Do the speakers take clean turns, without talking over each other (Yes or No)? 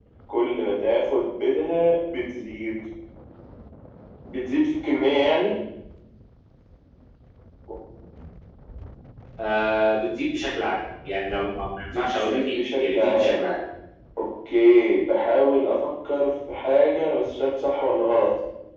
No